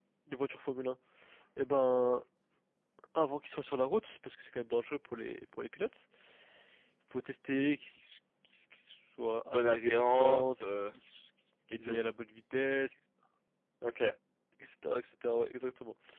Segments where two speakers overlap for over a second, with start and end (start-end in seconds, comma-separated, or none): 9.5-10.9